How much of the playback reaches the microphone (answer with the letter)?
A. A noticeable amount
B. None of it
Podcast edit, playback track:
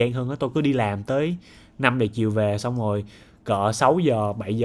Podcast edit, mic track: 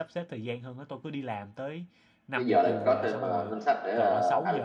A